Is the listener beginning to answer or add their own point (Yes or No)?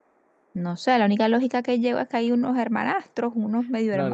Yes